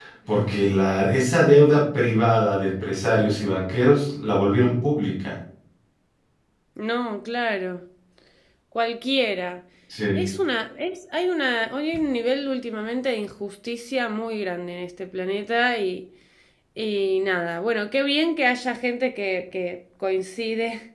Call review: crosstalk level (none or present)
none